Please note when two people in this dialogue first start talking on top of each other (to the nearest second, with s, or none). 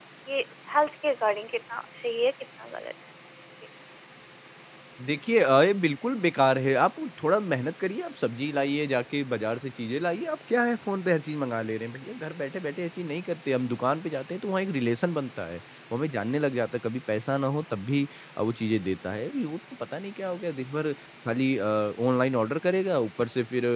none